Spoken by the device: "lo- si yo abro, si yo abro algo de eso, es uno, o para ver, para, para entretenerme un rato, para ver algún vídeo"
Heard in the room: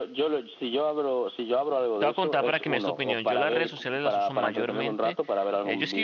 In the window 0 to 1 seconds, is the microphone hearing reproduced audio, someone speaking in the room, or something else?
echo only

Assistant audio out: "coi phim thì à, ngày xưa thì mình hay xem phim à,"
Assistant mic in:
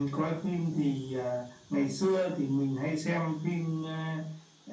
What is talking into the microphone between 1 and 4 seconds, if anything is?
echo only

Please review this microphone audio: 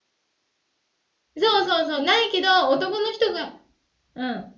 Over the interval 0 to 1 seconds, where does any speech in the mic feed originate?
neither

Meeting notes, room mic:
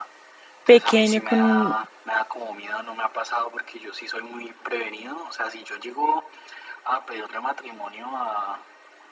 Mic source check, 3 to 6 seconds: echo only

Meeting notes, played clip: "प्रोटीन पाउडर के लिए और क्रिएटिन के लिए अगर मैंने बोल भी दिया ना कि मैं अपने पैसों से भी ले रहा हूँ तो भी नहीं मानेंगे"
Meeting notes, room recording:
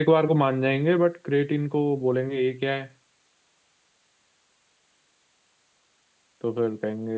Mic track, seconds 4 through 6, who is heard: neither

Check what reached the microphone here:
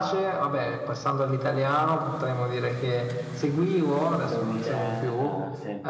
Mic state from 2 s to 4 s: echo only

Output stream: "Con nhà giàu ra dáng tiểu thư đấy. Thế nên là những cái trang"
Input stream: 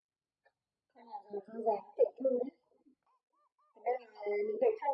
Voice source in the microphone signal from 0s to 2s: echo only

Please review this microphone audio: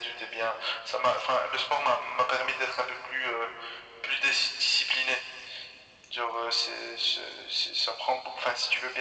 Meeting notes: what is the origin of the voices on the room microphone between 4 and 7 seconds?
echo only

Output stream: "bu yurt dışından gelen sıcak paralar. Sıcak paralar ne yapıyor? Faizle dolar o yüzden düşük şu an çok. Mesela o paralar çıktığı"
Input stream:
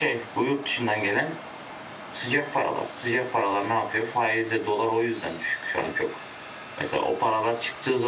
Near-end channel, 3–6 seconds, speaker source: echo only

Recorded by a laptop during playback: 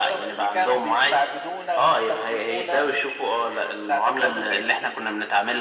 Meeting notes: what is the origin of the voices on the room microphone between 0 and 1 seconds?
echo only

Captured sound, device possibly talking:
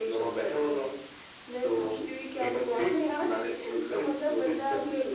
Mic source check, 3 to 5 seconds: echo only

